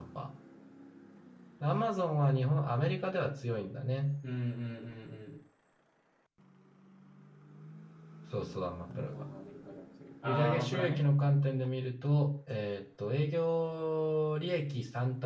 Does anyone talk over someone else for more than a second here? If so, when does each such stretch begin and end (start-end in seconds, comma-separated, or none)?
10.2-11.5